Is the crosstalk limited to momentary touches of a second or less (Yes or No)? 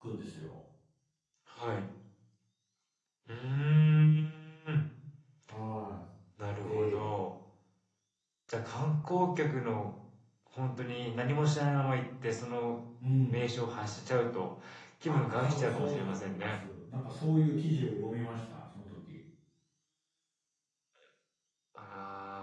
No